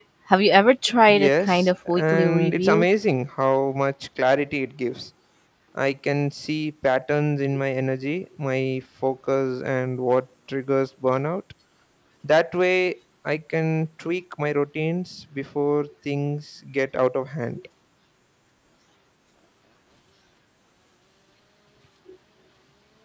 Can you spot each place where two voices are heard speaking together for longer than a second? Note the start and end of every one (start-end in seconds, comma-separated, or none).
1.1-2.9